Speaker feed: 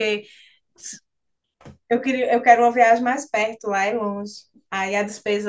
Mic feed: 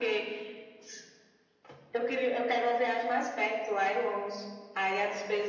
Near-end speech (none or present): none